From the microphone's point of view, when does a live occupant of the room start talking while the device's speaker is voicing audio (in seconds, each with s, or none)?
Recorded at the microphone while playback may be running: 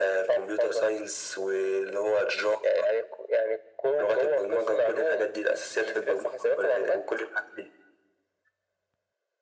none